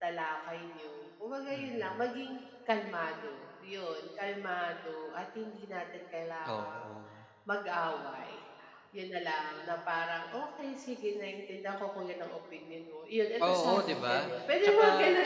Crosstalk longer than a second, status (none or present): present